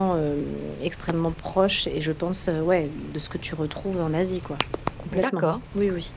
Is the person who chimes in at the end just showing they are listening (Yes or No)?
No